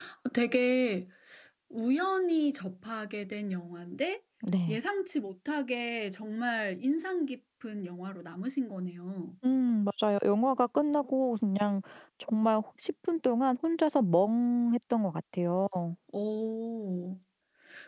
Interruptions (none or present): none